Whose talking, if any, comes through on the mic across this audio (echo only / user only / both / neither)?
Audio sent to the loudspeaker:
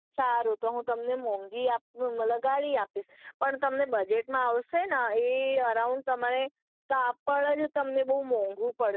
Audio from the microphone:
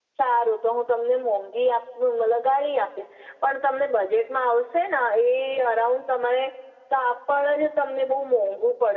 echo only